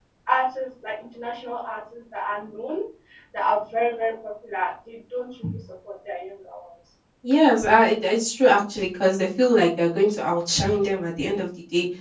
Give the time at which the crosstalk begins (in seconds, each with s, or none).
none